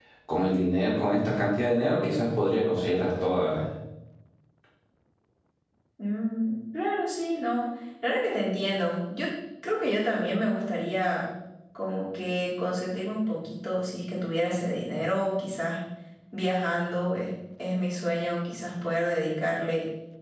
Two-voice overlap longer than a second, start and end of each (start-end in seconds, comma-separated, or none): none